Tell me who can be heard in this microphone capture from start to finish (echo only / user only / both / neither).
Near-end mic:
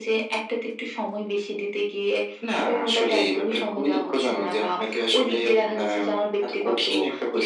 echo only